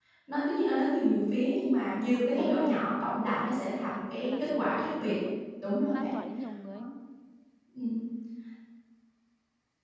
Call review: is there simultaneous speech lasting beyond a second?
Yes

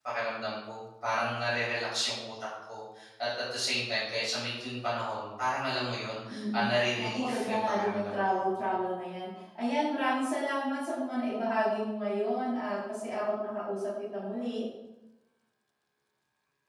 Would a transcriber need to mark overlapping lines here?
Yes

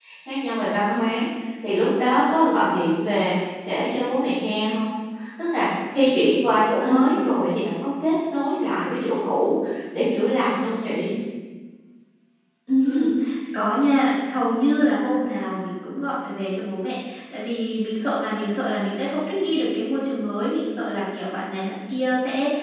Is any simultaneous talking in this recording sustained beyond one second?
No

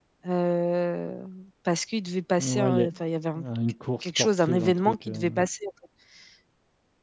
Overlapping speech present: Yes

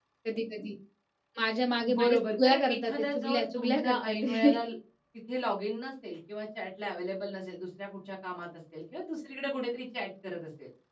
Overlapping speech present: Yes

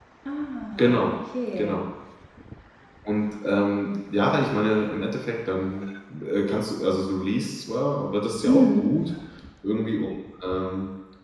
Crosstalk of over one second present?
No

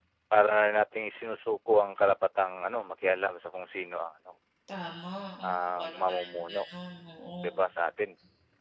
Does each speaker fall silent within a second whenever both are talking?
No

